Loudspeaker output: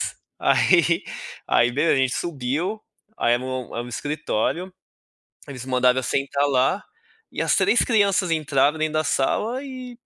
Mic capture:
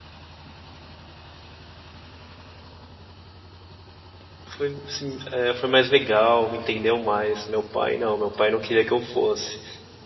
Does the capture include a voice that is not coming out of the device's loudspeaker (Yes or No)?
Yes